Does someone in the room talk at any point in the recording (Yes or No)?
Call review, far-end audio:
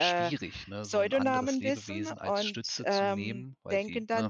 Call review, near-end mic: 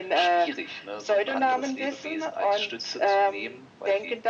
No